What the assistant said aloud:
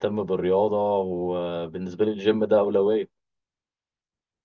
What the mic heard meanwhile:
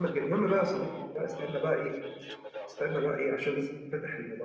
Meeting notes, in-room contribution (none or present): present